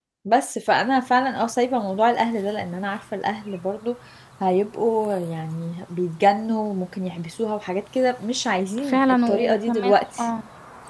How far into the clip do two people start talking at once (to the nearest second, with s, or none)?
9 s